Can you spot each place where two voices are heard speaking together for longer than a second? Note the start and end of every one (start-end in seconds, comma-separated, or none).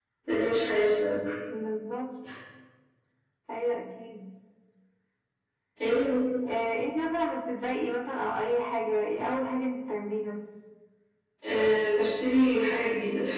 none